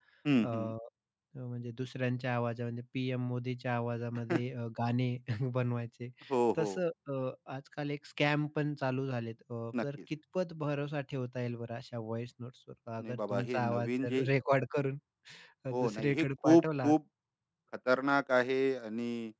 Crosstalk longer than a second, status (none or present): present